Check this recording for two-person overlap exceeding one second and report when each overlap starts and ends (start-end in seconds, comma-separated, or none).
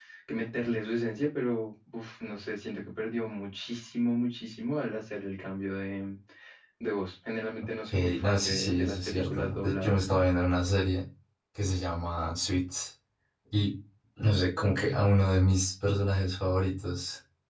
7.9-10.0